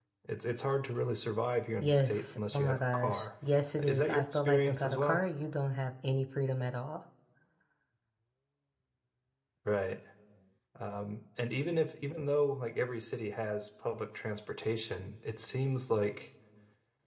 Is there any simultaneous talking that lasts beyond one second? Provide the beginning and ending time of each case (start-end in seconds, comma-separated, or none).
1.8-3.2, 3.8-5.2